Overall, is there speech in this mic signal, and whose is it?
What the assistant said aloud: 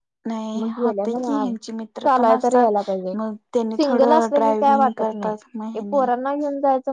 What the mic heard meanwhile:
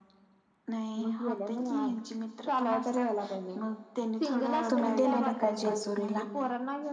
both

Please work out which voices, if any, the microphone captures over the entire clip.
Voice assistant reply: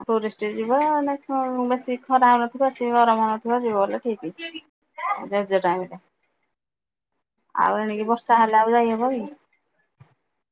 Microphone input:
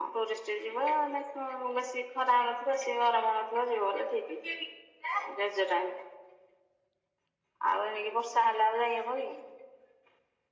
echo only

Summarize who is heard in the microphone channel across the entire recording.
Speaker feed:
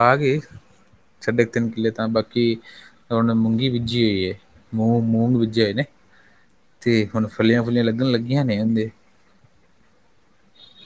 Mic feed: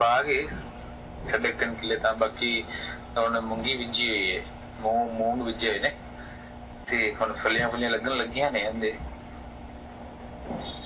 echo only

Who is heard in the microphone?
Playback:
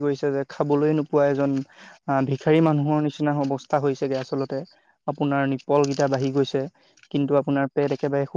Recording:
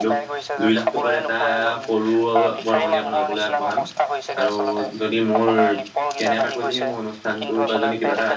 both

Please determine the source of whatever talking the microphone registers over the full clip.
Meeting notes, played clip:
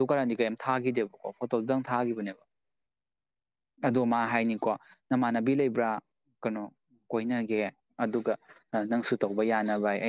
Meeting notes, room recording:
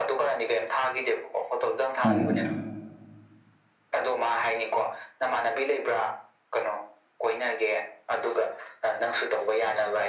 both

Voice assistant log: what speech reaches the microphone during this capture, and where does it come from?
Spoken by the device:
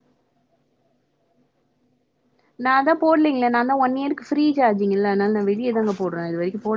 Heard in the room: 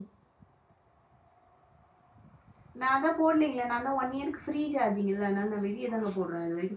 echo only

